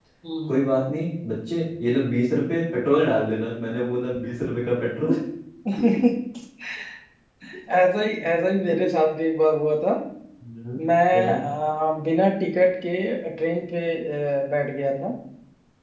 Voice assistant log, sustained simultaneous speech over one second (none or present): none